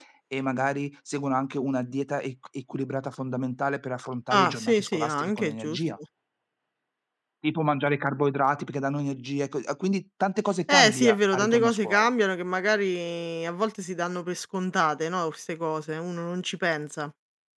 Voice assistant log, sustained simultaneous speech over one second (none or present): present